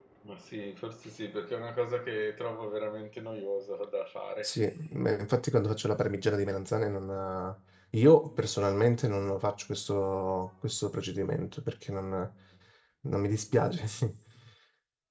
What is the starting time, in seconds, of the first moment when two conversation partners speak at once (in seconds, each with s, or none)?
none